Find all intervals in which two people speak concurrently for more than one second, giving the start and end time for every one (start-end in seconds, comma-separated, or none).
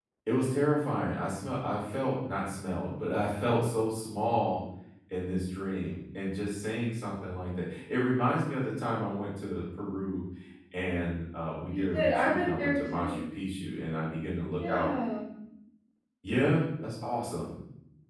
11.7-13.2